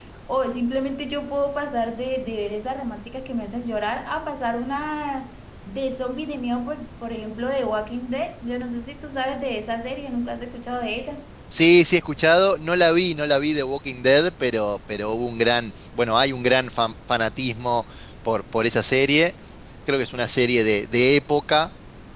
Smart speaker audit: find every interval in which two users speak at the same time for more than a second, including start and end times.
none

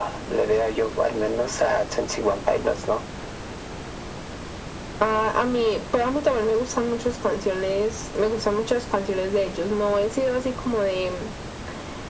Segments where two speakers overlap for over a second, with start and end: none

